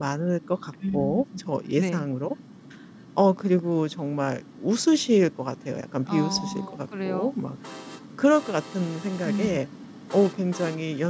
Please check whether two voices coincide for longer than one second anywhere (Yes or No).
Yes